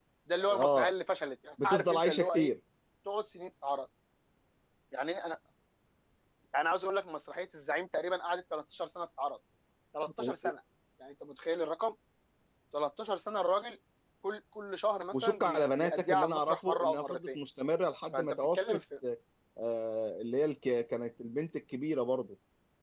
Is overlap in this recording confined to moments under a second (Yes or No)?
No